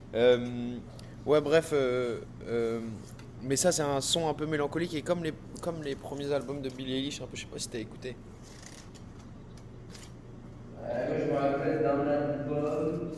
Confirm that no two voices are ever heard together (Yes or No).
Yes